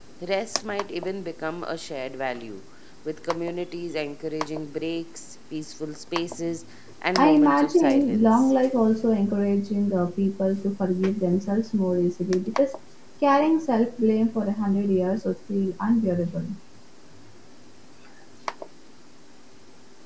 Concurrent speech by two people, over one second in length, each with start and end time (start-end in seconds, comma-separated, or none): 7.2-8.5